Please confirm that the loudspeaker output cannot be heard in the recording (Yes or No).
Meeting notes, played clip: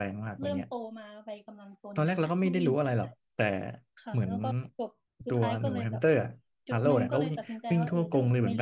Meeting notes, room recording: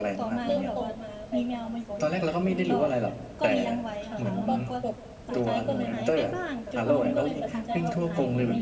No